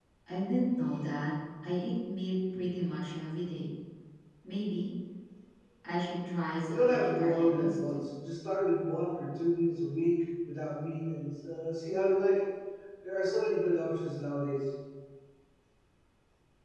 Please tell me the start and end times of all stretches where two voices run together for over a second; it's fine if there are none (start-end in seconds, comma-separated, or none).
6.7-8.0